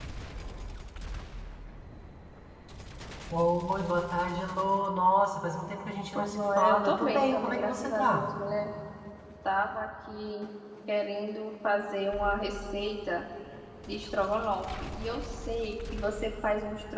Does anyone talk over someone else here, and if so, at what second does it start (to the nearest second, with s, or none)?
6 s